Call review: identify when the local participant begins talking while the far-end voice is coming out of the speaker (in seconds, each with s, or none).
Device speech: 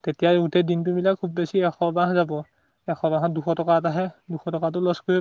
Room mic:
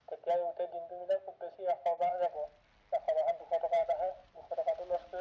none